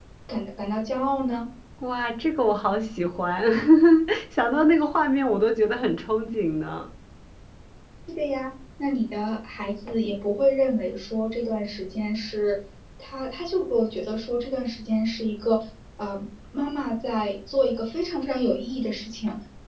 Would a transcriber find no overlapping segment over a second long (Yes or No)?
Yes